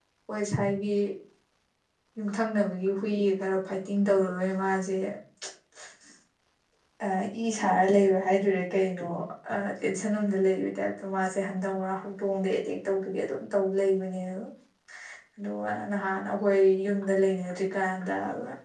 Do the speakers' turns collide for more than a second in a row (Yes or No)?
No